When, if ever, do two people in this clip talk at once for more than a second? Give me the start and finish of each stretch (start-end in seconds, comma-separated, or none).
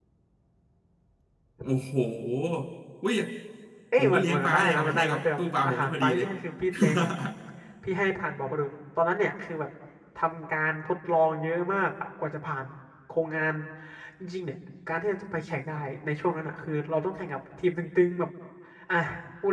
4.0-6.2